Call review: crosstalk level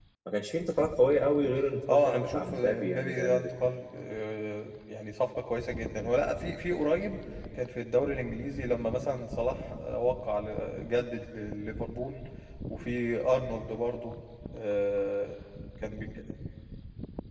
present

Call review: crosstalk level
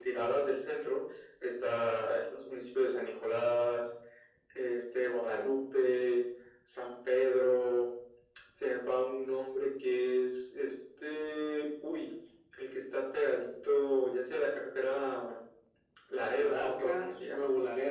present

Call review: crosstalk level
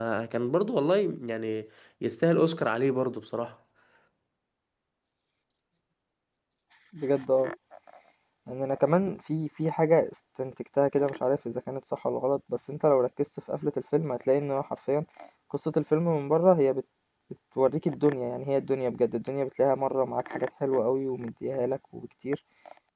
none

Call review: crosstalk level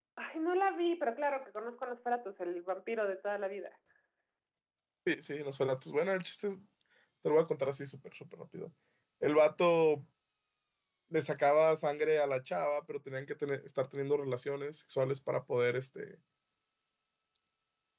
none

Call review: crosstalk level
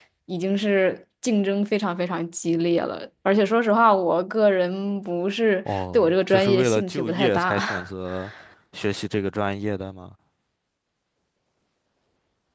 present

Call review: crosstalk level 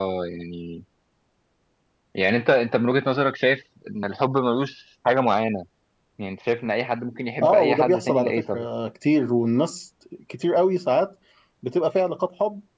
present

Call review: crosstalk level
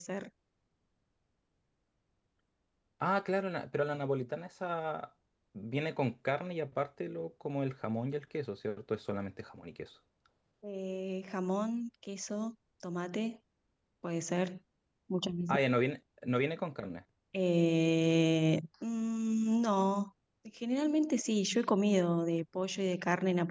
none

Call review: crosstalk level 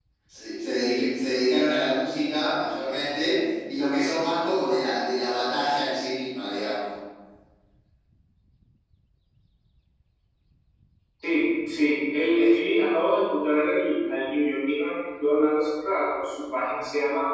none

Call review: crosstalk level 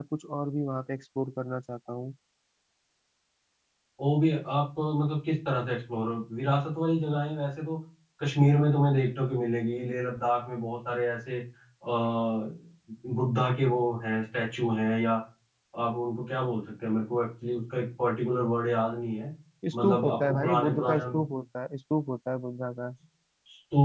present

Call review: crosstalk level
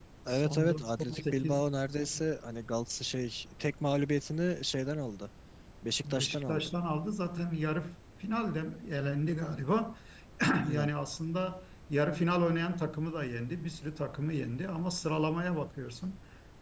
present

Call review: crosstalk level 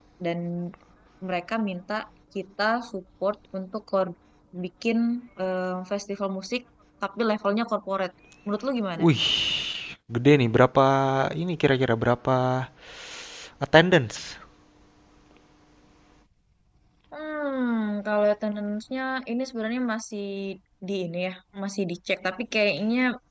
none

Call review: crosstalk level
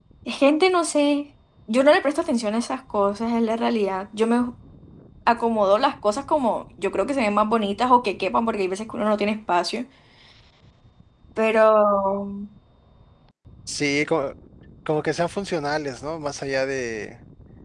none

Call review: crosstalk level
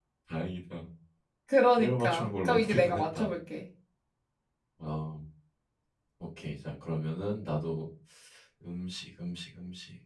present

